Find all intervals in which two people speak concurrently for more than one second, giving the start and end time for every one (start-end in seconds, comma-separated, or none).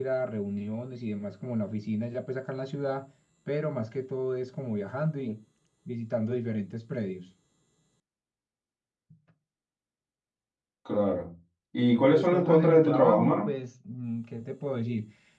12.1-13.5